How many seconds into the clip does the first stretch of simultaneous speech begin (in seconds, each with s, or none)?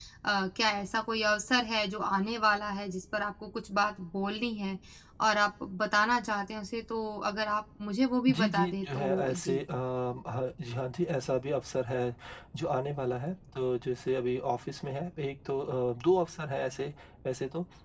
8.3 s